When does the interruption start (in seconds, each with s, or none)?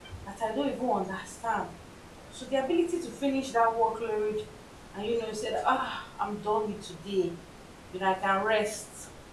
none